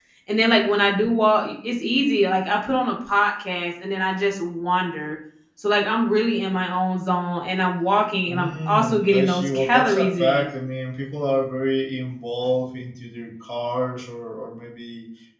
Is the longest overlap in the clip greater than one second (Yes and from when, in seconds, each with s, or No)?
Yes, from 8.3 s